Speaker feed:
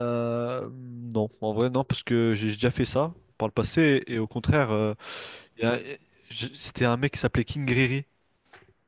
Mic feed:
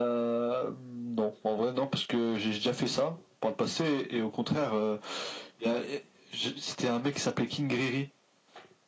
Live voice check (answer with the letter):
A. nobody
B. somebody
A